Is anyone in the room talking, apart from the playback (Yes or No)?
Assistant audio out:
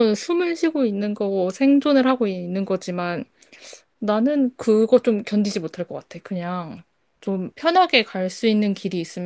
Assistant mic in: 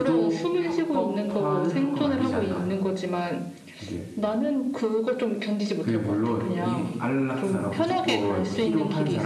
Yes